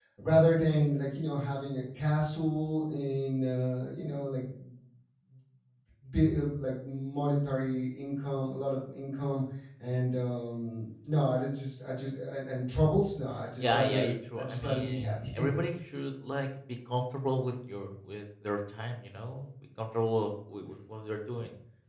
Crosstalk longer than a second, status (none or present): present